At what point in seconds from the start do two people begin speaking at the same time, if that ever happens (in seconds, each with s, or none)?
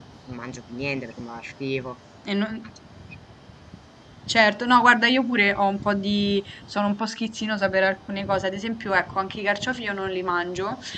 none